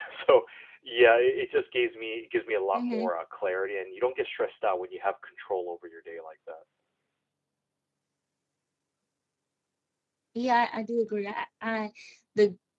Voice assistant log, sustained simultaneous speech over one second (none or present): none